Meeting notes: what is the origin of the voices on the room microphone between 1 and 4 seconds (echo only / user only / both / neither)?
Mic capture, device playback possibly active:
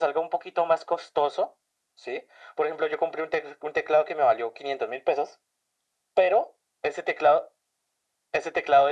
echo only